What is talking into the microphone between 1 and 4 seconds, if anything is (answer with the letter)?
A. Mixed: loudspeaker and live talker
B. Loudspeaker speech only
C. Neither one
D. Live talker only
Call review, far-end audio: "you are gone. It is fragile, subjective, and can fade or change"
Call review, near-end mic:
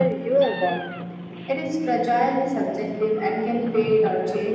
B